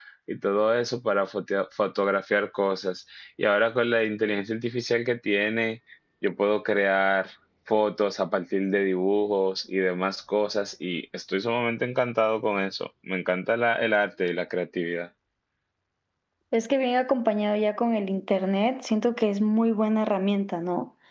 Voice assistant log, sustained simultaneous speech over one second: none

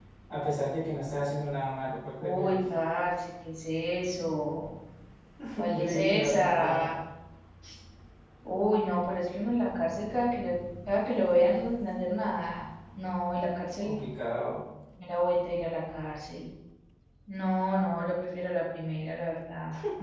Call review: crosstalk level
present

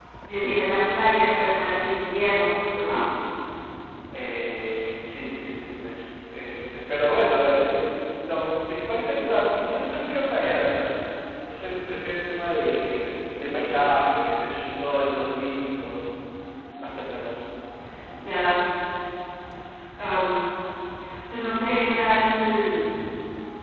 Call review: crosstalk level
none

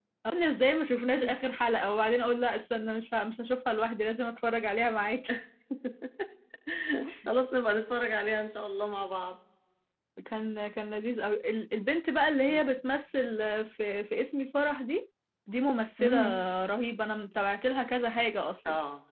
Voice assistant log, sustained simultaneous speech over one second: none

